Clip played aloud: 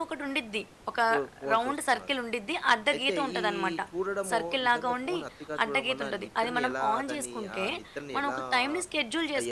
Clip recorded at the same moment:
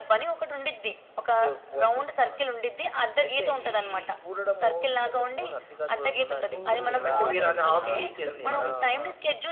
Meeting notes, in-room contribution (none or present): present